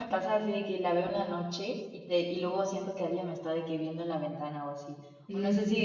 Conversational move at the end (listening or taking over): listening